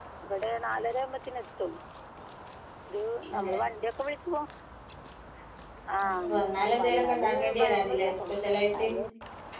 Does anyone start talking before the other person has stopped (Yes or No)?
Yes